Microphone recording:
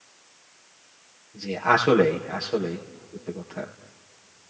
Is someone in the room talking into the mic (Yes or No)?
Yes